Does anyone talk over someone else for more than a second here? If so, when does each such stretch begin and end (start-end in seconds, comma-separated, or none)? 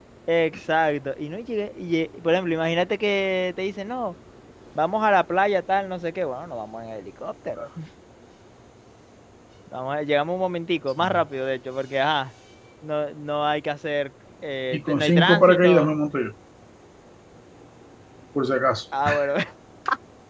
14.7-15.9